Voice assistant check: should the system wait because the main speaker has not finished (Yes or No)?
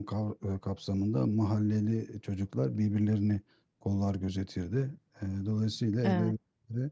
Yes